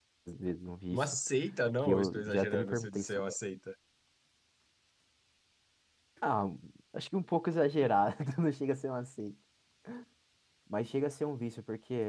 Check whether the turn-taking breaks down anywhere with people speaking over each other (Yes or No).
Yes